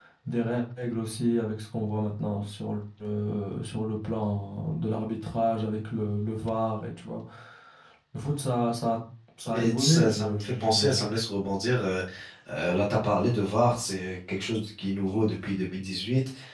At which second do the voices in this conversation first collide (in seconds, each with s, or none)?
9.5 s